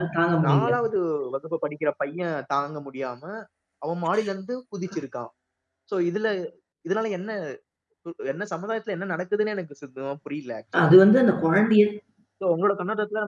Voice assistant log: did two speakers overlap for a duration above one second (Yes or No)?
No